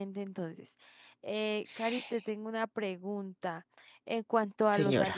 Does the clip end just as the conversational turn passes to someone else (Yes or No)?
No